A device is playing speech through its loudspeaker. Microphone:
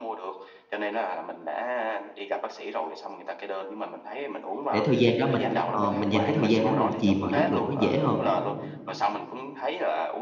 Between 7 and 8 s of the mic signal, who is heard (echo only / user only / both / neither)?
both